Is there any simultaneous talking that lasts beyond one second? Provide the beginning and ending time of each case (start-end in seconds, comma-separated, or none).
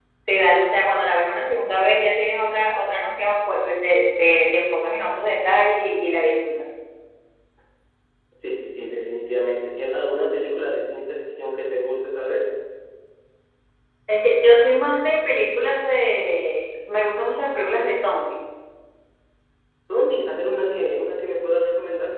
none